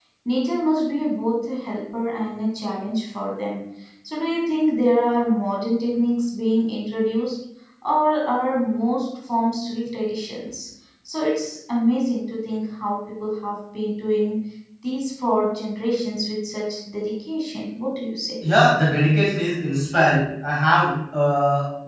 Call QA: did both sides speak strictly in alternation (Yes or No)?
Yes